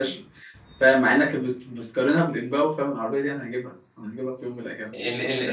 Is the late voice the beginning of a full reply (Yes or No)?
Yes